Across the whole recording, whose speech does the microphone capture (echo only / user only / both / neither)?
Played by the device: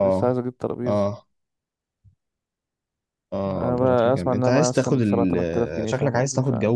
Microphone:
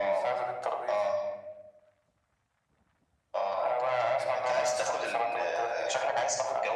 echo only